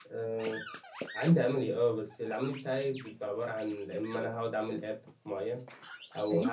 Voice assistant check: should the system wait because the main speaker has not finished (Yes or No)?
Yes